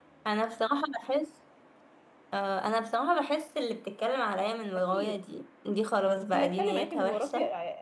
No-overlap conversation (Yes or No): No